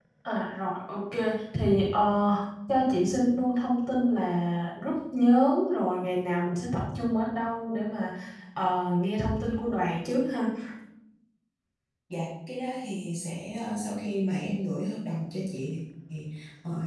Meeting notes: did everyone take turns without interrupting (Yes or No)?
Yes